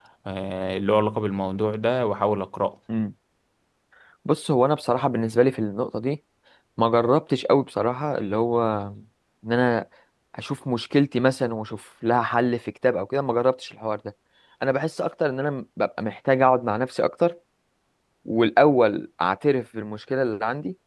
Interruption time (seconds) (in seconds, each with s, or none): none